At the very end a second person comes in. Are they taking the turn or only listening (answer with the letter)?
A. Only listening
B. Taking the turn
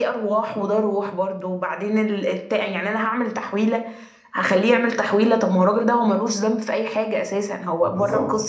B